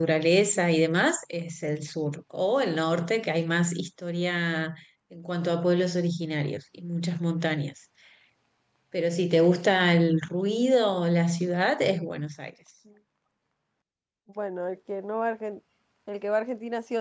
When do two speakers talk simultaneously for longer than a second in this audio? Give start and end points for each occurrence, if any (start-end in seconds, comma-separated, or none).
none